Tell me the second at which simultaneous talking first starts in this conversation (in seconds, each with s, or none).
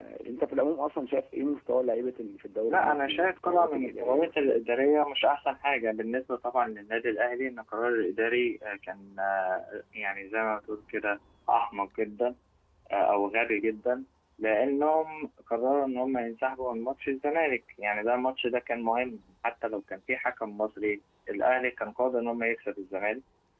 2.7 s